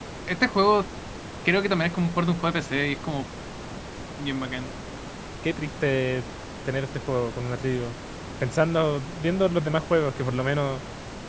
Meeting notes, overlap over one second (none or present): none